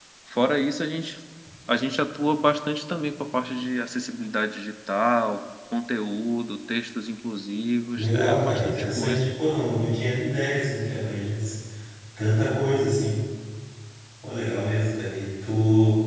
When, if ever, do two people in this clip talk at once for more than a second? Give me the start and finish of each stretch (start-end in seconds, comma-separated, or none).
8.0-9.3